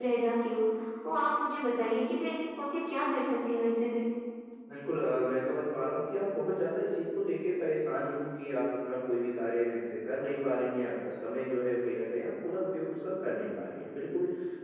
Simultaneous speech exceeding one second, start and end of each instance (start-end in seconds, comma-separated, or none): none